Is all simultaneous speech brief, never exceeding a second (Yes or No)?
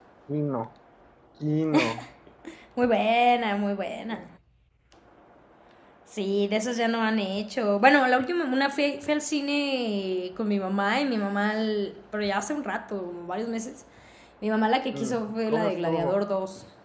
No